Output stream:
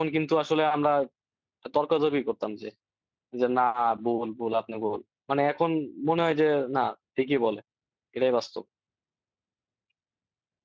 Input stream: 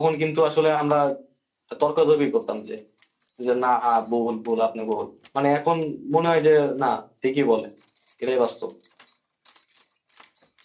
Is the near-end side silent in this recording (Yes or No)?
Yes